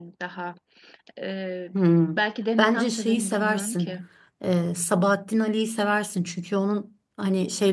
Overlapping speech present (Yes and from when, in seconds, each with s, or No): Yes, from 2.6 s